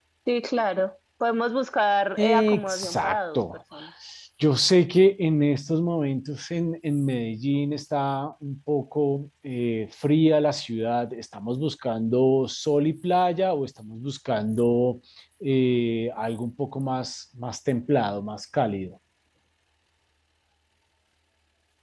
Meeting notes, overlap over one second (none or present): present